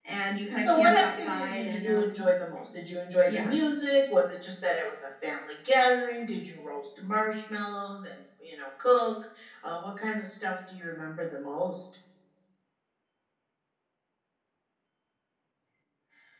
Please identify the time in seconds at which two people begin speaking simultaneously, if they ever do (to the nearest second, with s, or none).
1 s